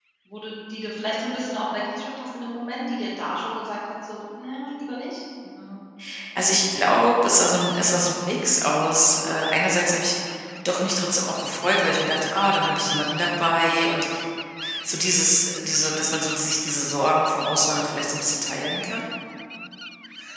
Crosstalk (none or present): none